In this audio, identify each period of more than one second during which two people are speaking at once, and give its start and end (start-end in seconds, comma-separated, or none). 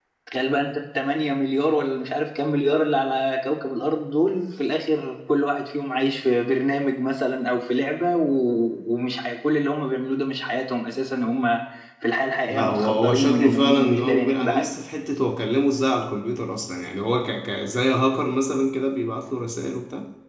12.5-14.7